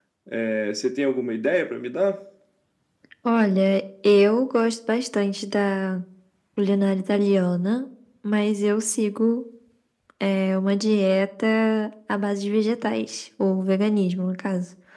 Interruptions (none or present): none